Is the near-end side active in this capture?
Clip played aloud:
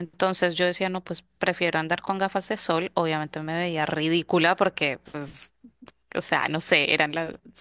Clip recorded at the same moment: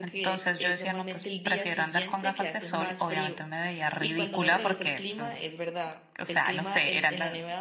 Yes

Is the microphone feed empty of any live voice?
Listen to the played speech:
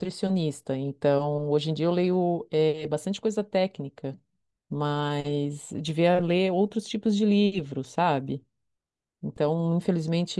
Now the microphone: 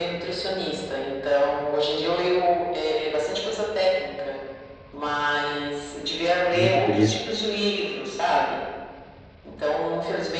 No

